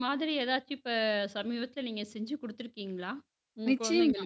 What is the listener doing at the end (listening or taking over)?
taking over